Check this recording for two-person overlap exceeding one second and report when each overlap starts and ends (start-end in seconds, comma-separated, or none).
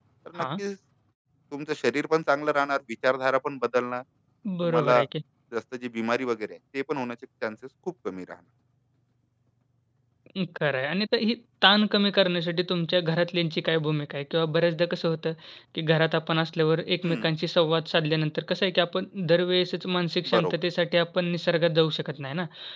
none